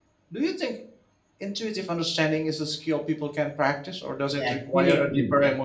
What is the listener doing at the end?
taking over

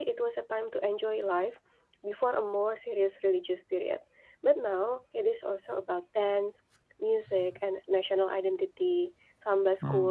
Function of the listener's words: listening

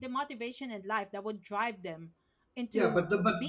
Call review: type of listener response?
taking over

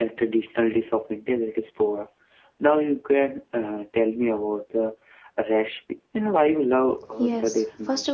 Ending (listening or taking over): taking over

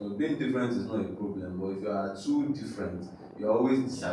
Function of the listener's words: listening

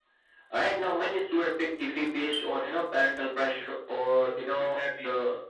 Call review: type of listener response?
listening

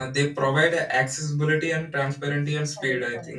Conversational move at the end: taking over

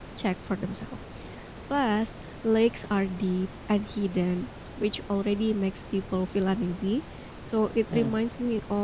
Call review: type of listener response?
listening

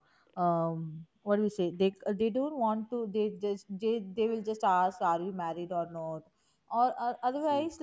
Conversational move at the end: listening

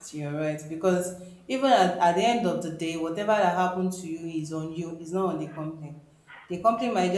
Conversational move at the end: listening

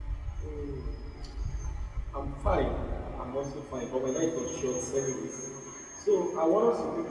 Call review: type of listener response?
listening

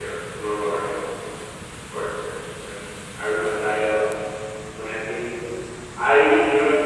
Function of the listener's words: listening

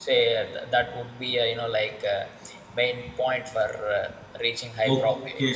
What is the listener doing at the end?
taking over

